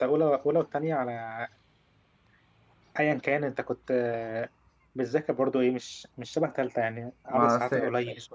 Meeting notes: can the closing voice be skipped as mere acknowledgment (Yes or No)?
No